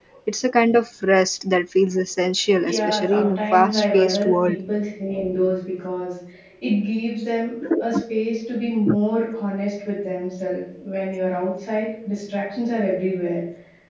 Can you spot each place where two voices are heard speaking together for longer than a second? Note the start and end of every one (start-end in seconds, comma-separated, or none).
2.6-4.6